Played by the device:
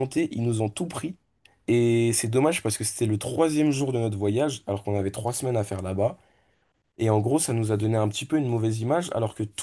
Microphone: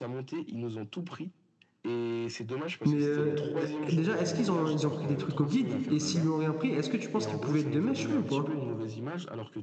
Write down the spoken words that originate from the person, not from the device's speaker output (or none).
mais euh, euh, déjà, est-ce qu'ils ont, ils ont pris des trucs au guide? Et s'ils lui ont rien pris, est-ce que tu penses qu'il pouvait être de mèche, lui, ou pas?